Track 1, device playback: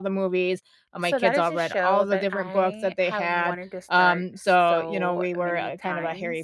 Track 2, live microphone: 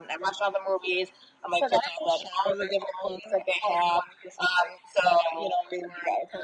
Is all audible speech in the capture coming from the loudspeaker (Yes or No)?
Yes